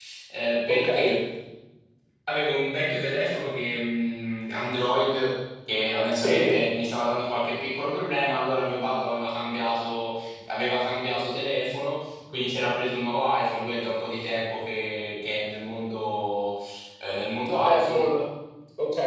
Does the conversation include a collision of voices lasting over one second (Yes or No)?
No